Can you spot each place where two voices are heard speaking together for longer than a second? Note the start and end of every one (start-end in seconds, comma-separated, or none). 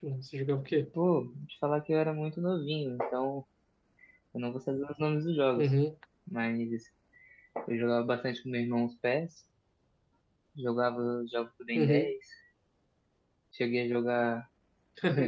none